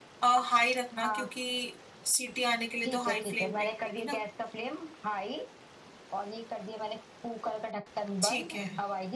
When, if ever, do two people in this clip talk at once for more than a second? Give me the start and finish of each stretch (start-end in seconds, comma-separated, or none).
2.9-4.2